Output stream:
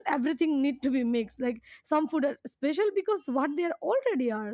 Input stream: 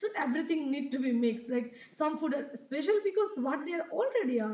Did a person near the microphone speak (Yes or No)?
No